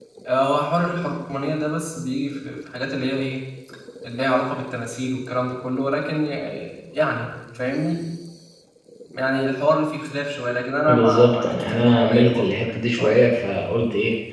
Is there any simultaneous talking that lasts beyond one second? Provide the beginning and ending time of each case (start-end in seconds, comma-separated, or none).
10.9-13.2